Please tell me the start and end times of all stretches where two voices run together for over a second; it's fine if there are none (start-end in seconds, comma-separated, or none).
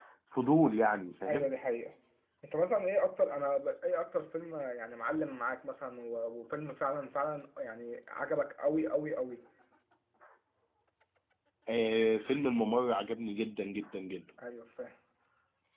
none